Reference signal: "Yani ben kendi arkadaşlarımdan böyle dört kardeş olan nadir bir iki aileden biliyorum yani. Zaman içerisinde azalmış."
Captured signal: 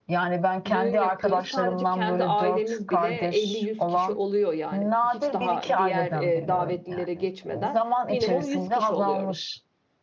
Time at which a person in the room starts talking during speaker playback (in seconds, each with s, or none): 0.7 s